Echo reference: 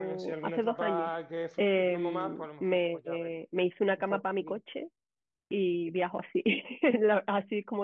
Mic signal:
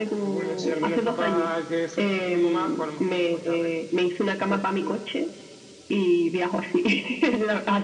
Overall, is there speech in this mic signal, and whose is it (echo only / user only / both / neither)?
echo only